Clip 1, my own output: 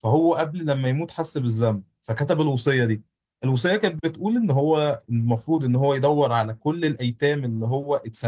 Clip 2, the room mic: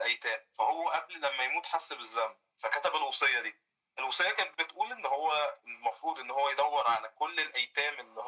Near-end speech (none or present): none